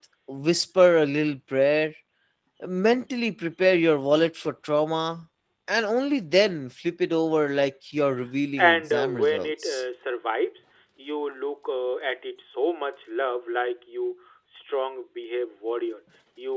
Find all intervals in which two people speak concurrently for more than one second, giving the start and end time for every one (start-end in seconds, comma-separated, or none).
8.6-9.8